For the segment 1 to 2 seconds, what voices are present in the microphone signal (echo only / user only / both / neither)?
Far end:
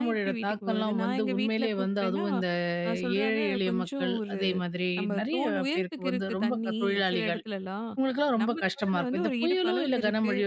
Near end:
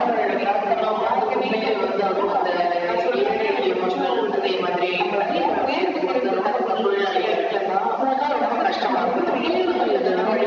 echo only